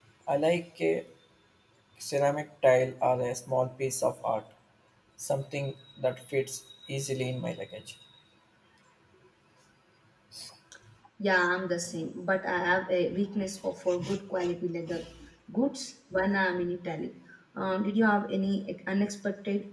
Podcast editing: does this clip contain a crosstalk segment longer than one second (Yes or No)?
No